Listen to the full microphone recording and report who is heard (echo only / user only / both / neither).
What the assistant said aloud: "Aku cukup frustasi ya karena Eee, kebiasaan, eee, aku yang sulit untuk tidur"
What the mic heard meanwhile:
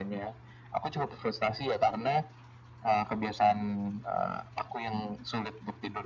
echo only